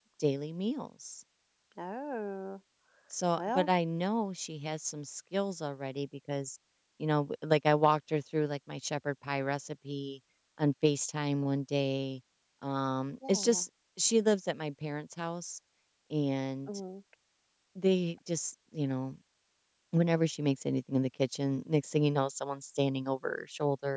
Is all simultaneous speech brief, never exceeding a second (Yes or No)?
Yes